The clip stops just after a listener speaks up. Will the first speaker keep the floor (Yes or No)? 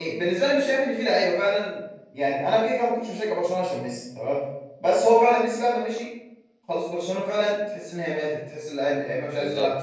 No